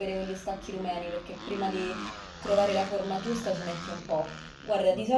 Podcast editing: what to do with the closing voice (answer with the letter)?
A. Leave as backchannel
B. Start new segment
A